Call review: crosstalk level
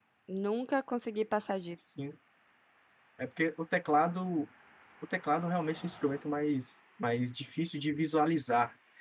none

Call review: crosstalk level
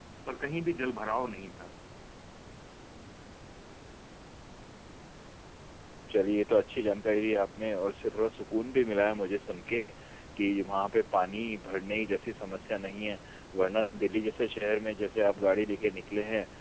none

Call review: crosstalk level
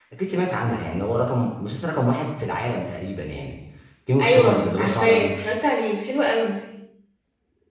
present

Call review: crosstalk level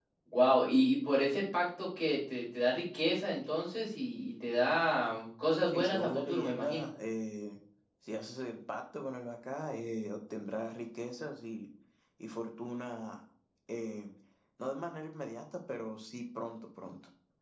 present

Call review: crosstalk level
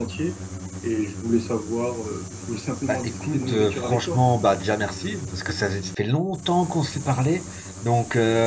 present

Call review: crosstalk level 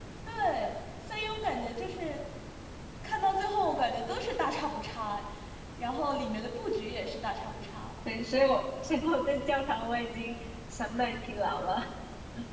none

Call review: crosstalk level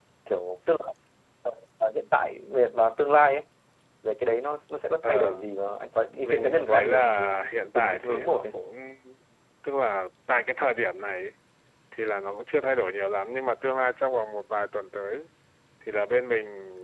present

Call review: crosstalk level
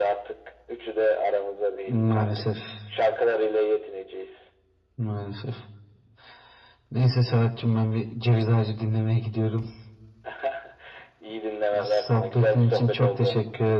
present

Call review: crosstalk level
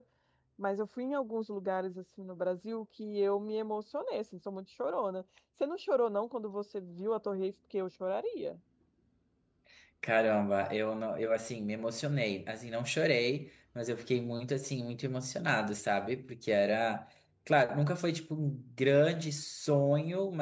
none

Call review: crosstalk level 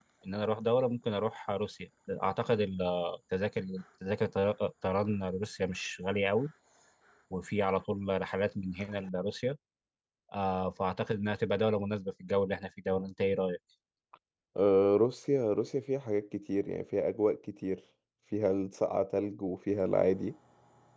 none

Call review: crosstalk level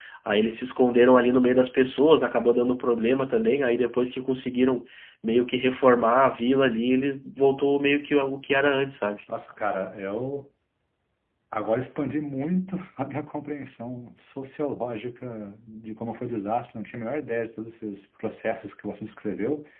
none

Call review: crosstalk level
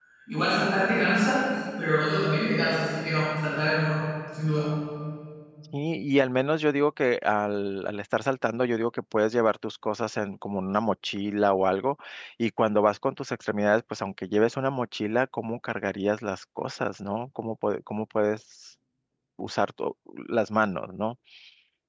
none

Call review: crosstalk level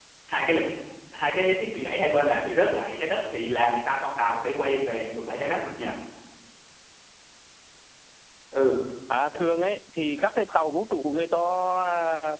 none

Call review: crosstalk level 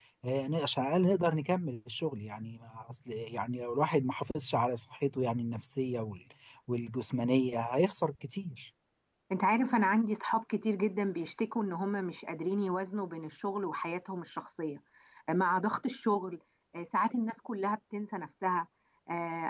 none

